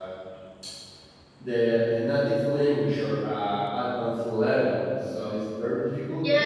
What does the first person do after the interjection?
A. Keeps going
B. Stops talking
B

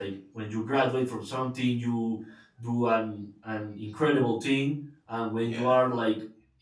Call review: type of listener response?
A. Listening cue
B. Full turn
A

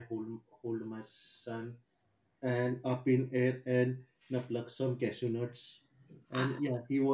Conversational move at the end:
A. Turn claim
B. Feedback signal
B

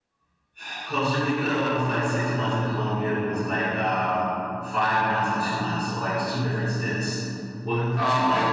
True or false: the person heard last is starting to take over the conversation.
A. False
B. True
A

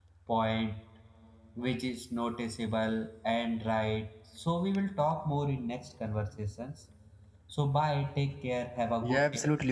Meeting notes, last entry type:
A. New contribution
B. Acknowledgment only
A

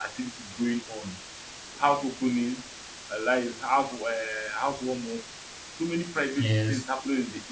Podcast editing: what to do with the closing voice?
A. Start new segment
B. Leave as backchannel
B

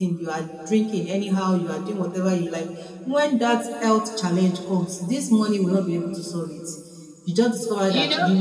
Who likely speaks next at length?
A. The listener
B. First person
B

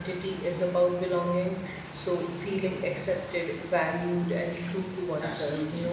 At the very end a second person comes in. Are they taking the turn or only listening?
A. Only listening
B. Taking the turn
B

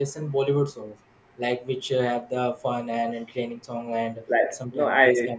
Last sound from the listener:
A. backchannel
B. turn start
B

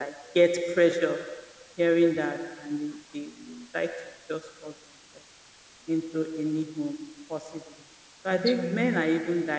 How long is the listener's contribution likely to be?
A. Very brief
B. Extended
A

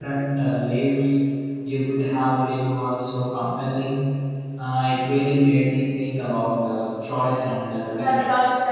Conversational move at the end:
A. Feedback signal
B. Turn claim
B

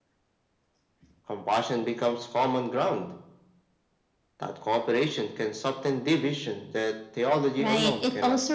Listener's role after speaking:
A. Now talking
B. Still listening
A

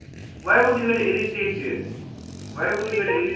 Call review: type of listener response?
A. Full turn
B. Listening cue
B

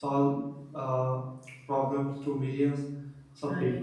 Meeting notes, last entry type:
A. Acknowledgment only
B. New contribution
A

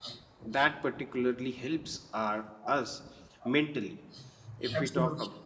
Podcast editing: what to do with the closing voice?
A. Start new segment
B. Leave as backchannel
B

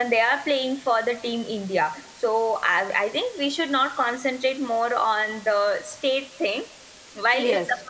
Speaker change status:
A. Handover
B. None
B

